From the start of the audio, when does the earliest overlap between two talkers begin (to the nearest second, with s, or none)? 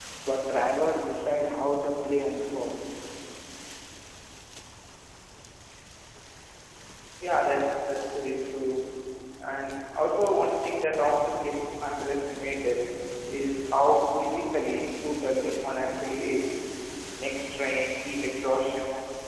none